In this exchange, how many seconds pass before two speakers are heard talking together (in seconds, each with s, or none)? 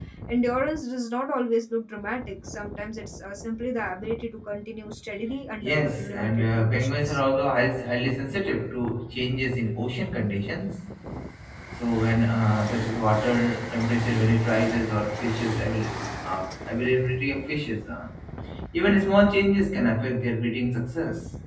5.6 s